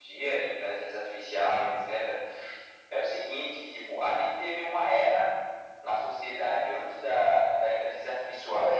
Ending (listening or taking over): listening